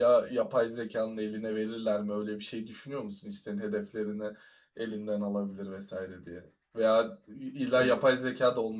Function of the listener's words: listening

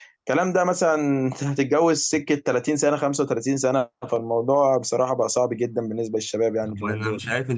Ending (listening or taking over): taking over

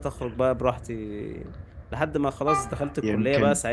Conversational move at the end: listening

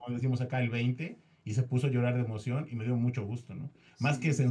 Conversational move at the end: listening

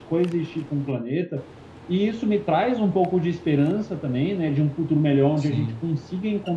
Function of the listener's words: listening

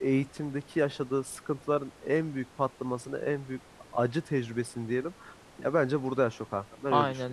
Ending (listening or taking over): taking over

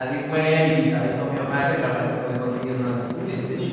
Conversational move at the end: taking over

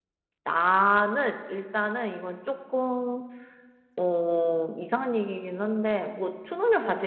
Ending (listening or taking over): listening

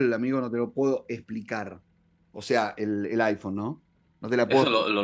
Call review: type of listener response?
taking over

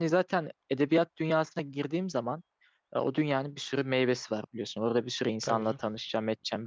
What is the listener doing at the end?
listening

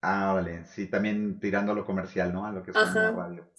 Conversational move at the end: taking over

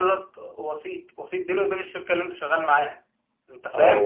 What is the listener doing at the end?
taking over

